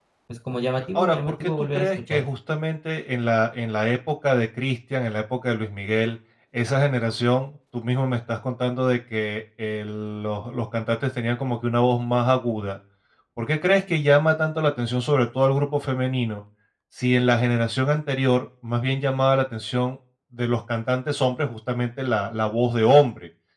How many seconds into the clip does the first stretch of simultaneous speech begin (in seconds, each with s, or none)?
0.9 s